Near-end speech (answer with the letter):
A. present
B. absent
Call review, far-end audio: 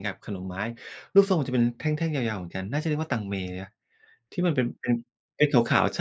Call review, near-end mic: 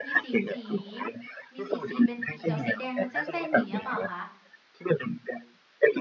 A